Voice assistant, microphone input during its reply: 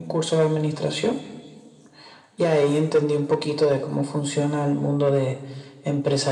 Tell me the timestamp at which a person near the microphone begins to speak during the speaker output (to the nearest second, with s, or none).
none